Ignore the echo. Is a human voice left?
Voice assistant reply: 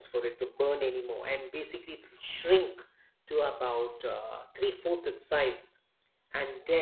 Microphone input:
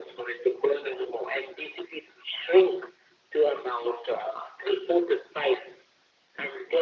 No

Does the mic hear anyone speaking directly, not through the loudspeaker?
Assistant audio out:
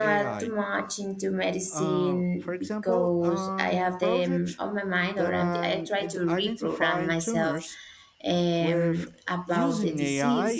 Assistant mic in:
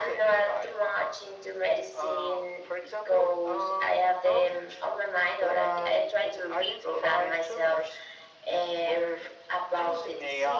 No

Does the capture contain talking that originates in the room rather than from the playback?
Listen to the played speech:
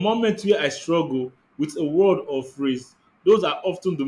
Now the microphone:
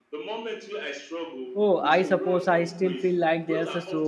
Yes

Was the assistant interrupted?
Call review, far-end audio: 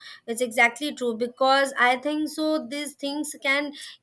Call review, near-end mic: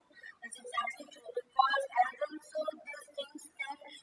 No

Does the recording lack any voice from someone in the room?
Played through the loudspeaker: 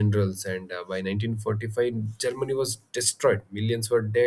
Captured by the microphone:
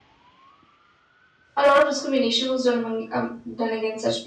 No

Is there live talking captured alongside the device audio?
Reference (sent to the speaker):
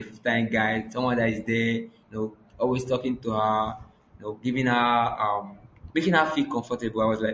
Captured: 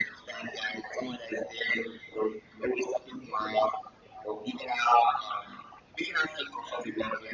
No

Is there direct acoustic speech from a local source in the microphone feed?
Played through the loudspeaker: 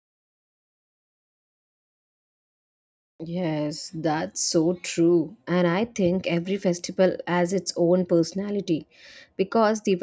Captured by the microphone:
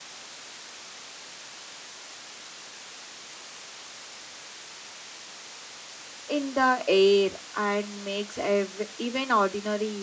Yes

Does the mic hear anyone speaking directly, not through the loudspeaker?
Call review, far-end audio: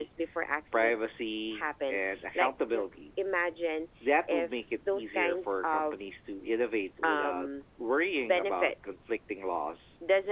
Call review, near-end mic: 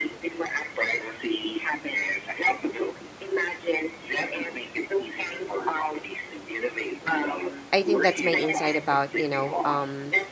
Yes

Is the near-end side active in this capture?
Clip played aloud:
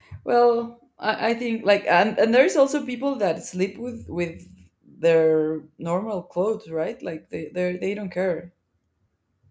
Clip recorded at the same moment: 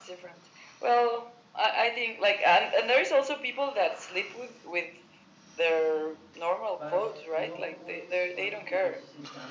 Yes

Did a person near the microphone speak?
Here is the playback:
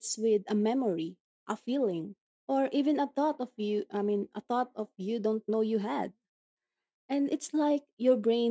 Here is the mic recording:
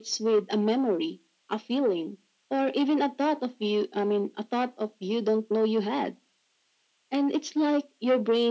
No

